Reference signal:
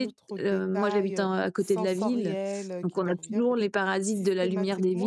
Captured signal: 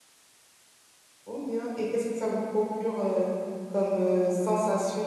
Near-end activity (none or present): present